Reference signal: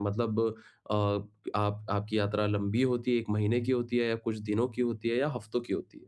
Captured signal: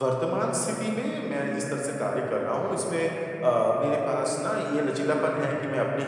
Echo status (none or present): none